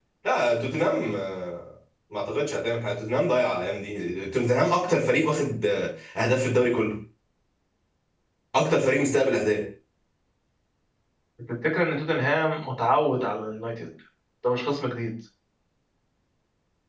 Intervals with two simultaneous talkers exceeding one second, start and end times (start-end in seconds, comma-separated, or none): none